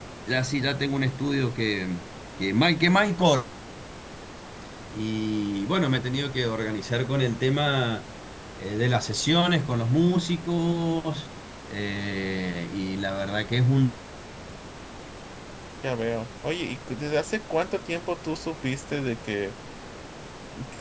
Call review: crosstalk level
none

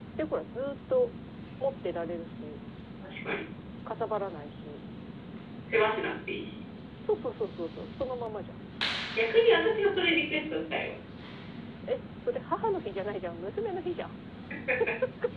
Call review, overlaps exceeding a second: none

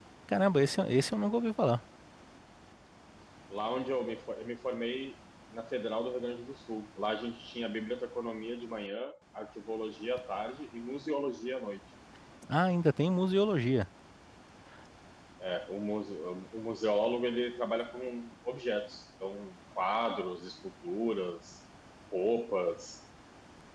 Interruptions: none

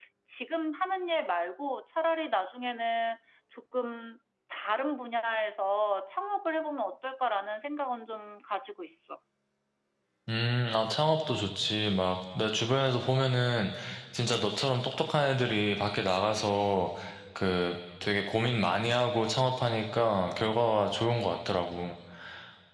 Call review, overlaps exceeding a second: none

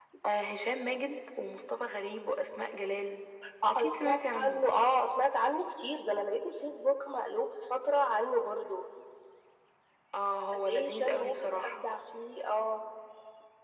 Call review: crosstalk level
present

